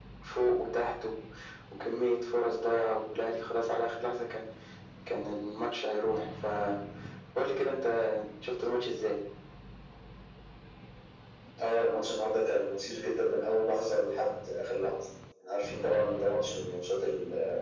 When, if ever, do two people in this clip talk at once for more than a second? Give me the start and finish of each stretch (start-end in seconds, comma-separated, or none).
none